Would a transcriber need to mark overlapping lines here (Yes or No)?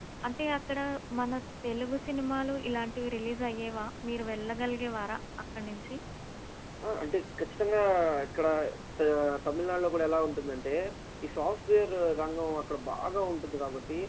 No